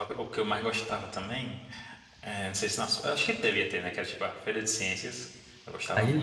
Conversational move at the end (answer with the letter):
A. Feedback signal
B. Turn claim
B